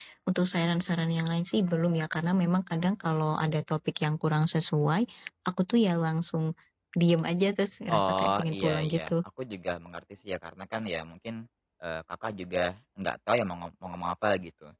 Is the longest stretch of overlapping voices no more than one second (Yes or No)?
No